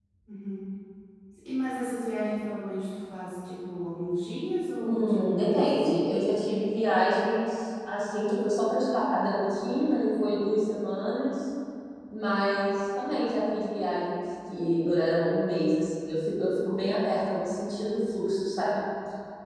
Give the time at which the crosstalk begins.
4.8 s

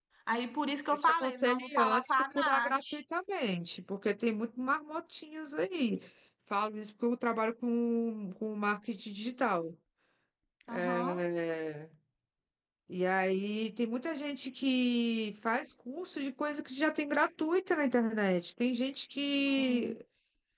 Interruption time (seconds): 0.9 s

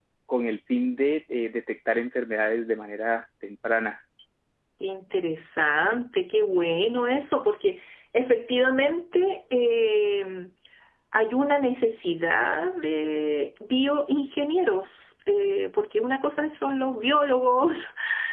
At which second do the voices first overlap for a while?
none

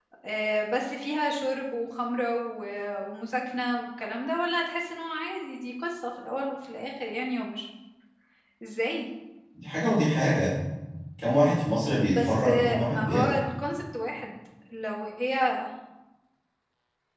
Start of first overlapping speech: 12.1 s

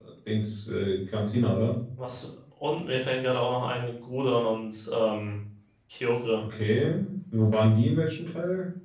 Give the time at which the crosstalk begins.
none

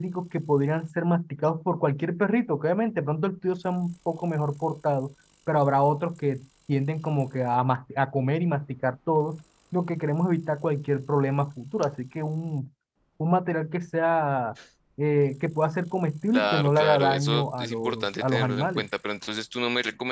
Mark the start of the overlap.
16.3 s

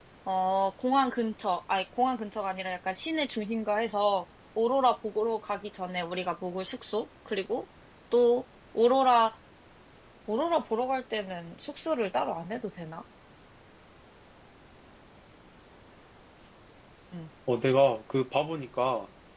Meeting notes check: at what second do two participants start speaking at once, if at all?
none

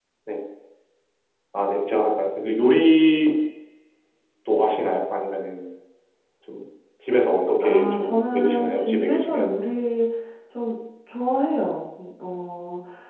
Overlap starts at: 7.6 s

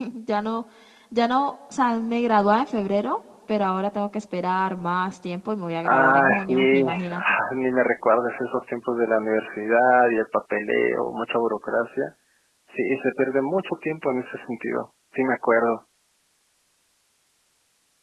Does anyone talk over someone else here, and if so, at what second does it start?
5.8 s

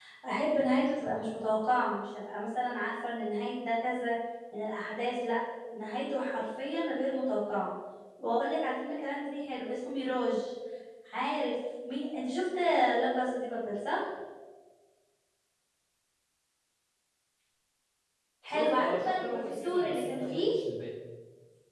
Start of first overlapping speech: 18.5 s

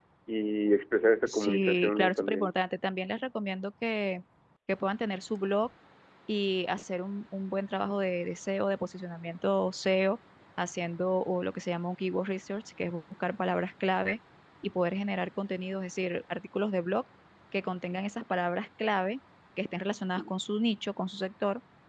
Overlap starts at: 1.3 s

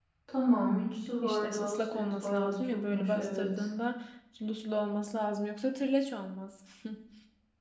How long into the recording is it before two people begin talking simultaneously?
1.2 s

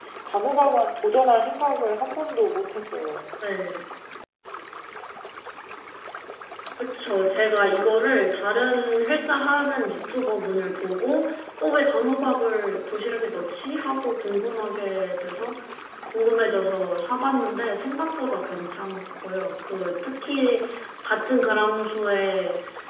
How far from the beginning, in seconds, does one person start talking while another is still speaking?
none

